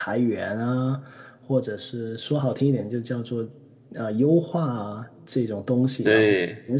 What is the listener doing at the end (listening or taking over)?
listening